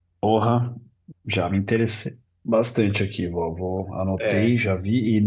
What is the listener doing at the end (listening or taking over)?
listening